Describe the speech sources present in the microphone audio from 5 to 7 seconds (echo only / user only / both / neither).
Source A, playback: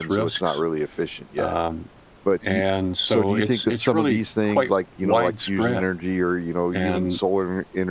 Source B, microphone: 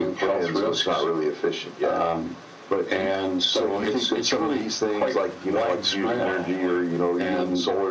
both